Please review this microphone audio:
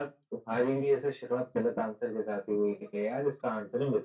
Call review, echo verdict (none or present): present